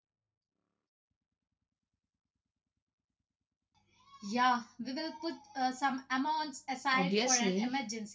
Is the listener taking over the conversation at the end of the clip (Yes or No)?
Yes